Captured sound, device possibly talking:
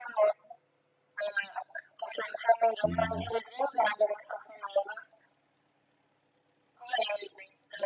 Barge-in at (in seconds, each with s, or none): 2.8 s